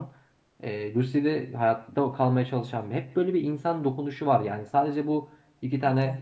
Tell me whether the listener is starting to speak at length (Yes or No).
No